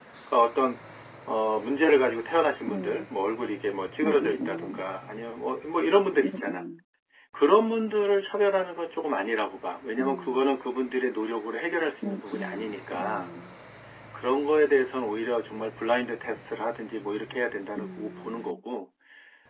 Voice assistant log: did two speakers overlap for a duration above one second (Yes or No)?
Yes